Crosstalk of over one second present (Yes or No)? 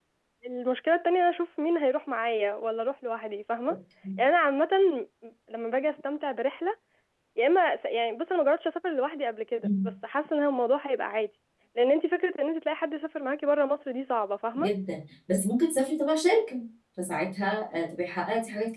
No